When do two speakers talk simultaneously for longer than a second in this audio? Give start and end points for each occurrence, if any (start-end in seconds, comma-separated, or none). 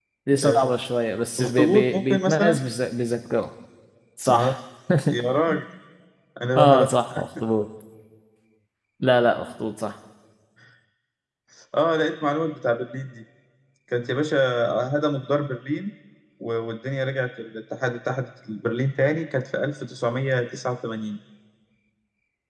1.4-2.6